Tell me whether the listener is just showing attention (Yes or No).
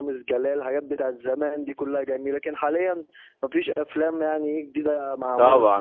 No